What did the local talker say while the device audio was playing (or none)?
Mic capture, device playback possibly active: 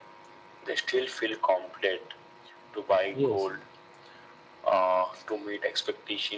Yes,